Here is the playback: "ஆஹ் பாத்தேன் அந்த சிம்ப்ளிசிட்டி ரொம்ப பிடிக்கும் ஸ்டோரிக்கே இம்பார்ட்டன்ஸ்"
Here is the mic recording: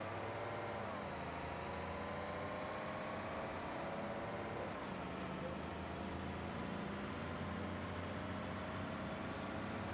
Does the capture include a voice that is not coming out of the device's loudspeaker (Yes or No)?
No